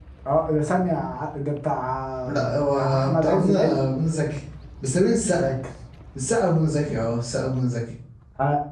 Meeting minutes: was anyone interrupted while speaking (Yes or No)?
Yes